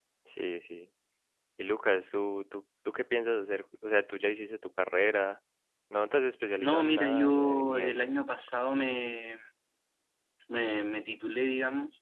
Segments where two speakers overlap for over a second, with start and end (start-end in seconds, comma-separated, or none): 6.6-8.1